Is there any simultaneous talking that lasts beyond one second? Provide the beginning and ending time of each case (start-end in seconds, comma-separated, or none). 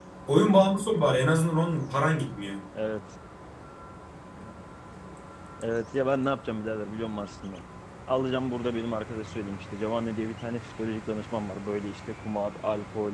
none